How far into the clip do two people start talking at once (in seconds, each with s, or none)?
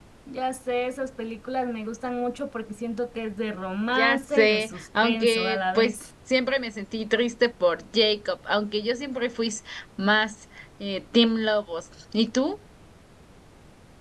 4.0 s